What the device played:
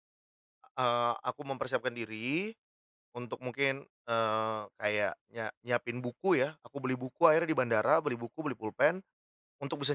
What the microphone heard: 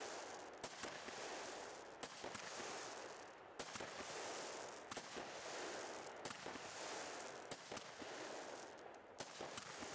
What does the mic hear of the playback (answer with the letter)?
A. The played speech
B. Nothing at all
B